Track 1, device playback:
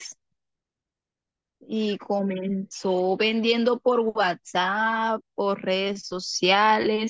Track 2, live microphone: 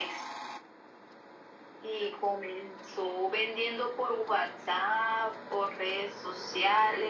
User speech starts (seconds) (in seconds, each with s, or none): none